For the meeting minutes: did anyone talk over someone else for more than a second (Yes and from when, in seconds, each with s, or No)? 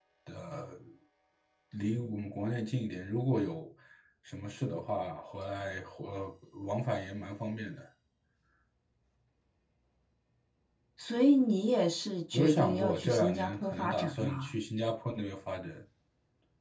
Yes, from 12.3 s